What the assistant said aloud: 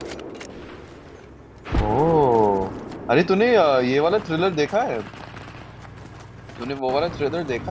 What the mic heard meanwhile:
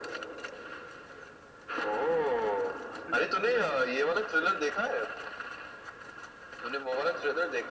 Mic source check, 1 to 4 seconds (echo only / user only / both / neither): both